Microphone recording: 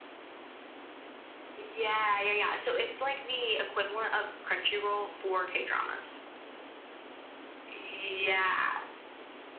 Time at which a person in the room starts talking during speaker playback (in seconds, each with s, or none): none